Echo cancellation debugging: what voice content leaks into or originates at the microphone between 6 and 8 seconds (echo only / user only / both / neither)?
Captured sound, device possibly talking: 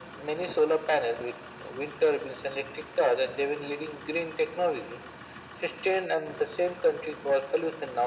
echo only